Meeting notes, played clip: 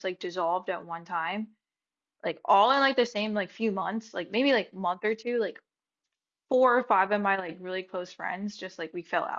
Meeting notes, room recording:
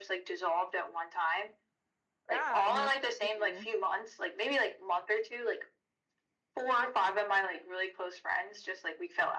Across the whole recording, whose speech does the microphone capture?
both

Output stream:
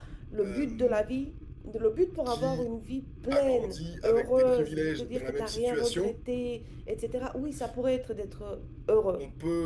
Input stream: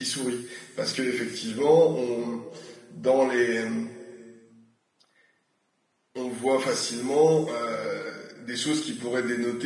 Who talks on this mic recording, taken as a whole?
user only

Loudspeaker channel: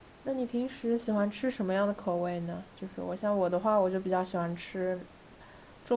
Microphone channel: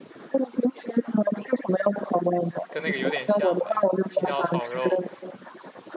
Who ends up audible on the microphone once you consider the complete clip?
both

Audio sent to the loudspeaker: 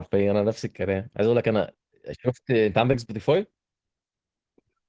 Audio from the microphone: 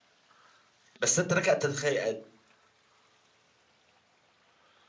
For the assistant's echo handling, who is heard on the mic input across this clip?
user only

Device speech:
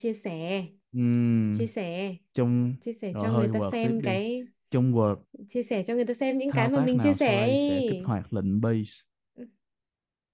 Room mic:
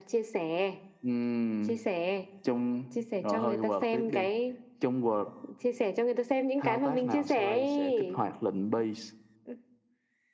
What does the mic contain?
echo only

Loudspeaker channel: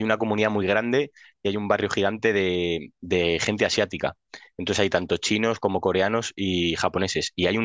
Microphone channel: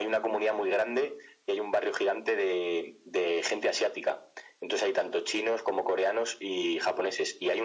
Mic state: echo only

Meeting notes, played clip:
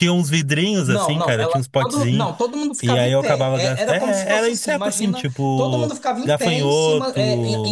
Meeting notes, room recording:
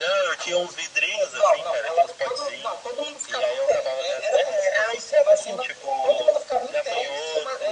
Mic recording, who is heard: echo only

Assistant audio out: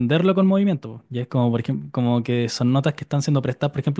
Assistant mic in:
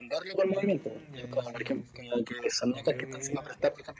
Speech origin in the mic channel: both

